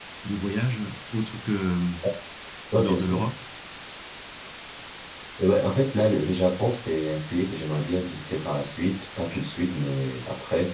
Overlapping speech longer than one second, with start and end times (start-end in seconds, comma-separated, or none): none